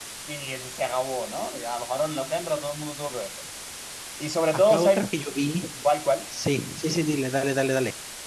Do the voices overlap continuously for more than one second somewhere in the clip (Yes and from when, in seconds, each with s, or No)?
No